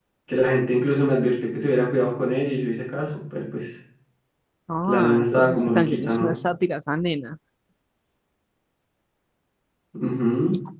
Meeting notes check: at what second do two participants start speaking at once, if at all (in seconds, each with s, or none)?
4.9 s